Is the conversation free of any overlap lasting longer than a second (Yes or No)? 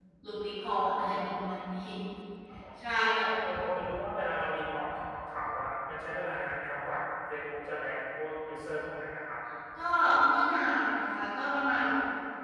Yes